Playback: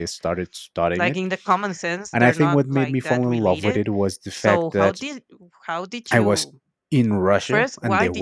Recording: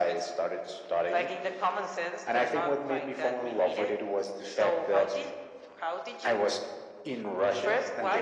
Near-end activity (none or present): none